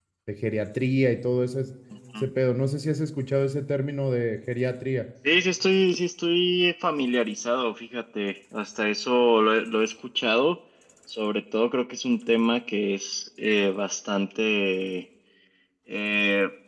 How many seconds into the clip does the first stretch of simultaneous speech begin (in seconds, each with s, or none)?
none